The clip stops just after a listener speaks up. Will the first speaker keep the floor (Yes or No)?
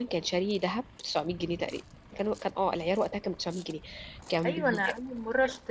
No